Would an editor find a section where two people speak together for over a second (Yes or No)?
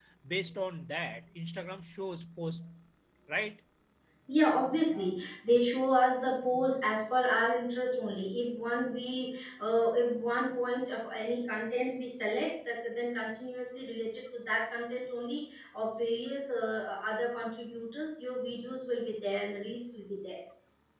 No